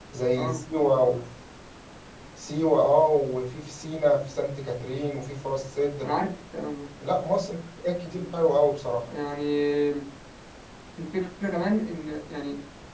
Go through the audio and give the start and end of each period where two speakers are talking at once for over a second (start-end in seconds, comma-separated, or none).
none